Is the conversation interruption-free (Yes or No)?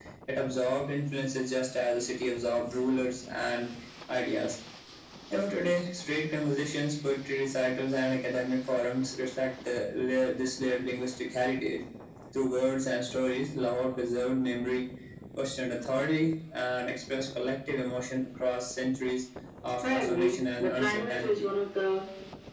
No